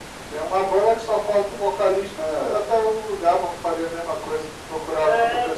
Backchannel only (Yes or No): No